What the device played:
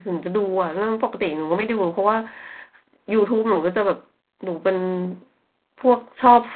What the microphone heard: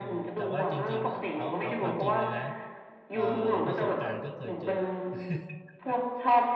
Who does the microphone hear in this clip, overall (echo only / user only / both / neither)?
both